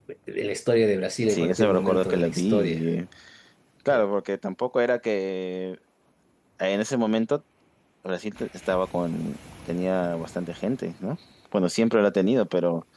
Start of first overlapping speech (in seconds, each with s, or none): 1.3 s